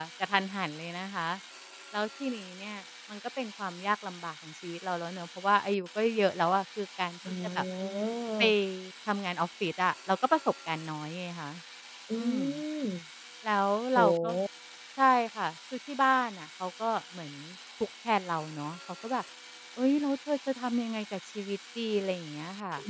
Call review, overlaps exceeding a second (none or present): none